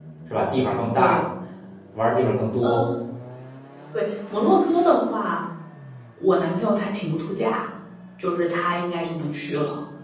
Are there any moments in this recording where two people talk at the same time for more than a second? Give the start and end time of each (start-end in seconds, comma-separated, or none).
none